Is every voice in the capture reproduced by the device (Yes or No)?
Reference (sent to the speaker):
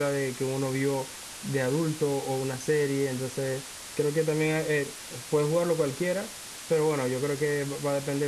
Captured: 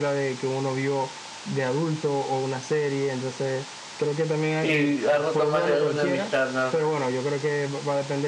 No